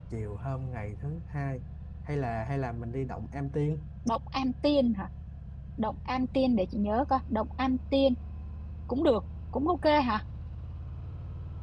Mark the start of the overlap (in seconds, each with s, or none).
none